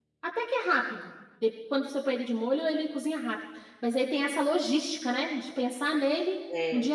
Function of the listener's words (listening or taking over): taking over